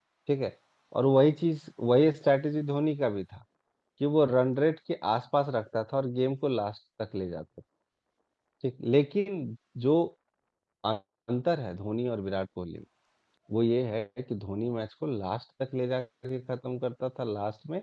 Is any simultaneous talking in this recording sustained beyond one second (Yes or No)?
No